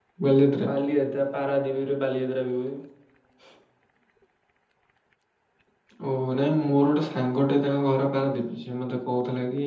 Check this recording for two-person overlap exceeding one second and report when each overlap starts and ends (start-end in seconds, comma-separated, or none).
none